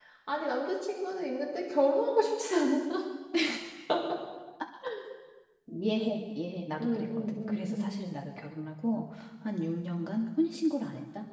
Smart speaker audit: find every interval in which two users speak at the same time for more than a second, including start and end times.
6.8-8.0

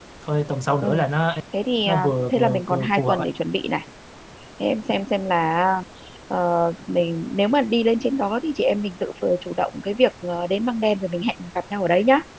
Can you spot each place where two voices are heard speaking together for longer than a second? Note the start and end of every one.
1.9-3.3

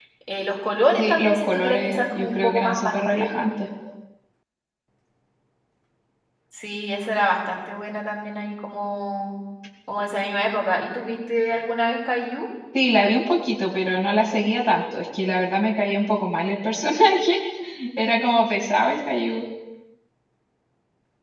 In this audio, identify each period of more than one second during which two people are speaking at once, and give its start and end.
1.0-3.3

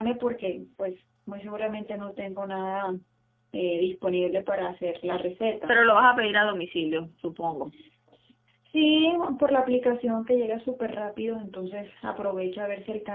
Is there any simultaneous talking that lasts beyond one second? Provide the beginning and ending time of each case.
none

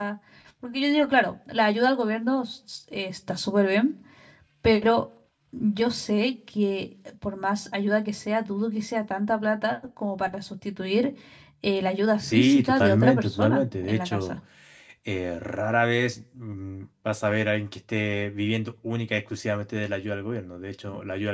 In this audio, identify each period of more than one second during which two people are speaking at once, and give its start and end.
12.2-14.4

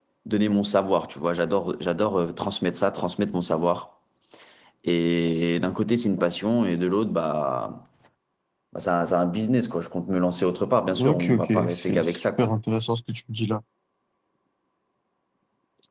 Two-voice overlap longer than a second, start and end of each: 11.0-12.5

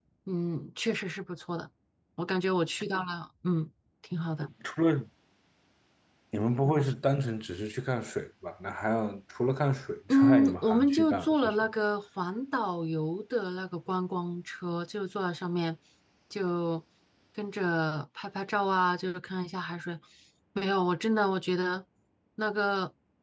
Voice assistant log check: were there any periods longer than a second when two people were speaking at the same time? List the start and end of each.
10.1-11.7

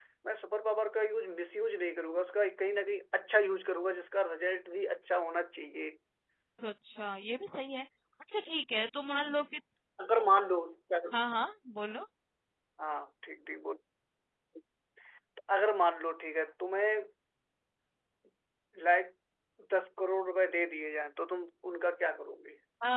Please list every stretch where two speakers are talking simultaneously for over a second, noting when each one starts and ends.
none

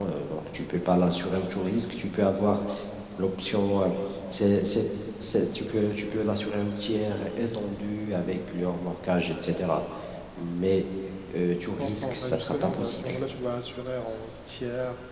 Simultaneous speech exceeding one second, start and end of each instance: 11.8-13.1

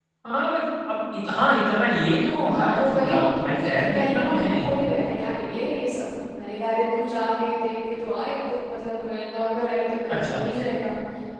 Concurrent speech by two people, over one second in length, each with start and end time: 2.5-4.7

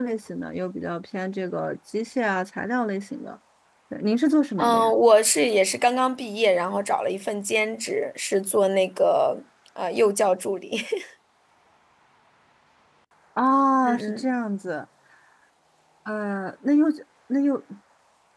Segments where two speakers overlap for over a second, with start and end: none

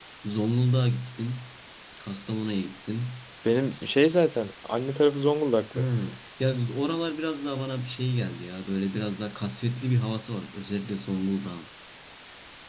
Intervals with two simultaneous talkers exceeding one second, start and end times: none

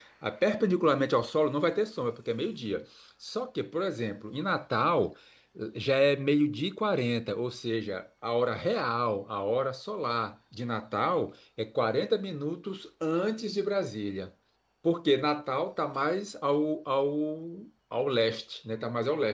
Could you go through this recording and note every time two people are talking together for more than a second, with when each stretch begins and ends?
none

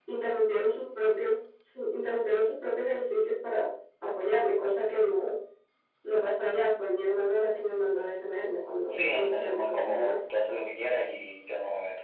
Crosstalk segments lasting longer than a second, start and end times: 8.9-10.2

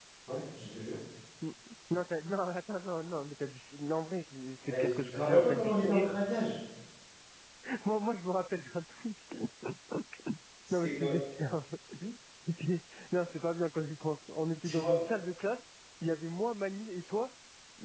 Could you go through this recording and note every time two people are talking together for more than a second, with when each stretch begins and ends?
4.7-6.1

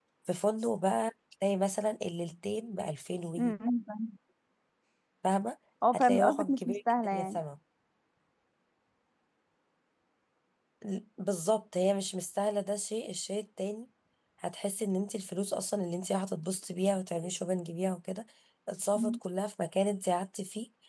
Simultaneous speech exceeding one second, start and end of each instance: 5.9-7.4

